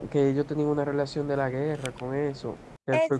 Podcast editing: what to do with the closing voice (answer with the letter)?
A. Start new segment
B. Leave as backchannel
A